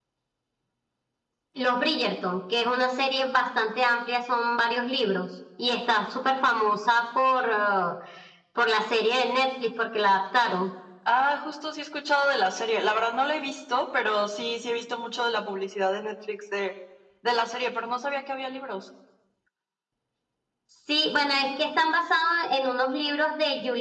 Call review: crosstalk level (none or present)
none